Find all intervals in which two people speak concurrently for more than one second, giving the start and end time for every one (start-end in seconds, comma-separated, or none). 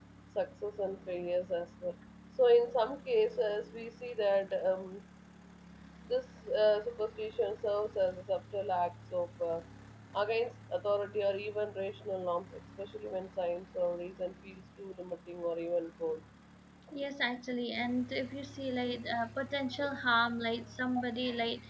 none